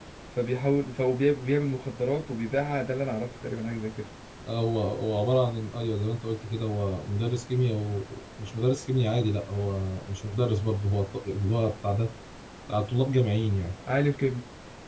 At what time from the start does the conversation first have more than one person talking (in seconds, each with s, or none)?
none